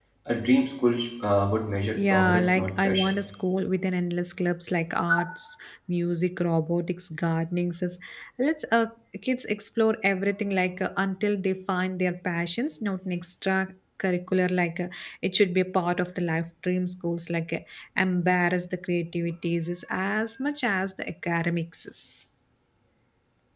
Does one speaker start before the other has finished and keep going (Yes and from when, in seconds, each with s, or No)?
Yes, from 1.9 s